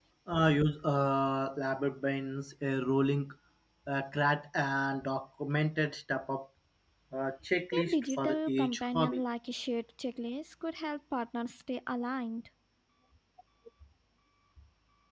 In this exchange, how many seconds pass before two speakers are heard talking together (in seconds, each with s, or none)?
7.7 s